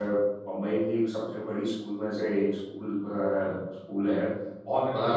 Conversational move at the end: listening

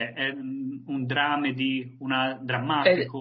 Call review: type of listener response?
taking over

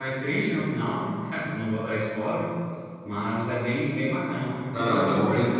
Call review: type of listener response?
taking over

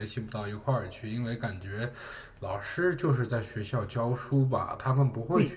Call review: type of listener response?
taking over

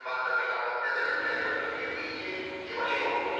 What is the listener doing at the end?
taking over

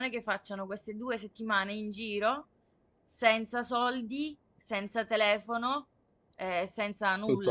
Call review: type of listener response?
listening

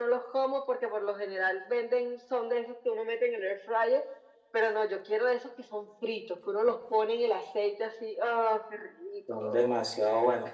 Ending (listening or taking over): taking over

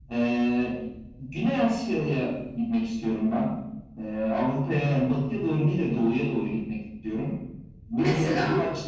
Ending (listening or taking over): listening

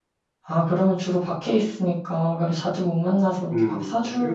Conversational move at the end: taking over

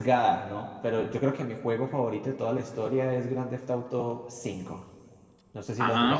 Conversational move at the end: taking over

